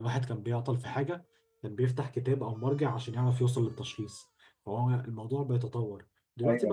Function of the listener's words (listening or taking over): listening